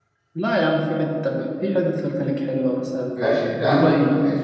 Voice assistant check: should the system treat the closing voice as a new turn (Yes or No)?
Yes